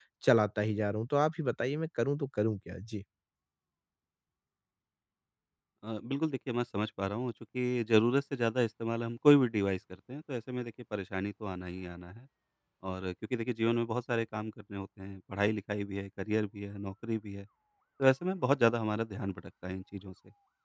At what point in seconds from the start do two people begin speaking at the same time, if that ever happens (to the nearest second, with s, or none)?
none